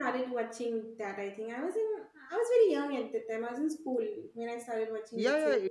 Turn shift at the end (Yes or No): Yes